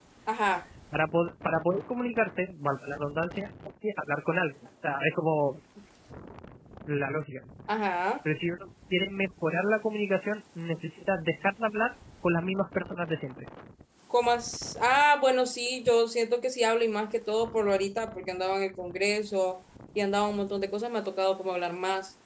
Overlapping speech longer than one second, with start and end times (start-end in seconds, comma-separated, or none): none